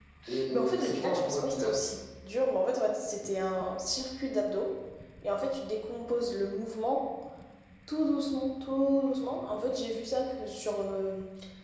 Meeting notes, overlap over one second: present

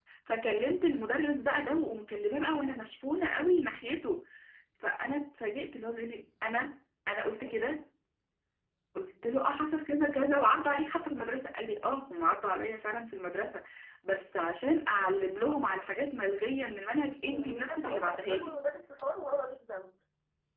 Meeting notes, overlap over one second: present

